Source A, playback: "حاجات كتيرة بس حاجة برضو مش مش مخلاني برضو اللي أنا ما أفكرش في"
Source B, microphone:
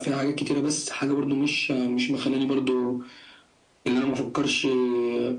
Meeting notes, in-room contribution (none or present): none